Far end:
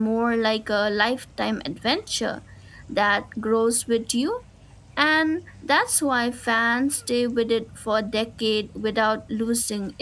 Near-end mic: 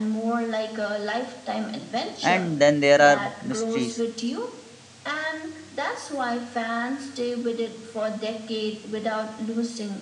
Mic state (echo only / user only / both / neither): both